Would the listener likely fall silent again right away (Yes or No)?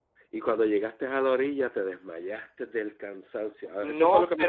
No